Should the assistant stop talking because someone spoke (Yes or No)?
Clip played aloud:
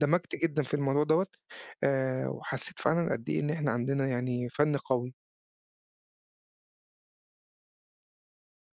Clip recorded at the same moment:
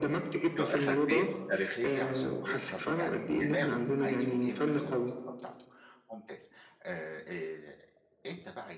Yes